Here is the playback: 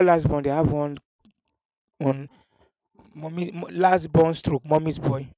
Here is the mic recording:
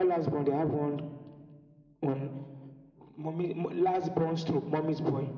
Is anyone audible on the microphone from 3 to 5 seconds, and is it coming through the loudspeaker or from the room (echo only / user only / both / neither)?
echo only